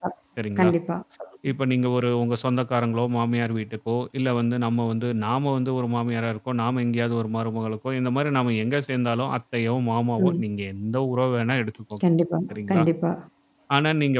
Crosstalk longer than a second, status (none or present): none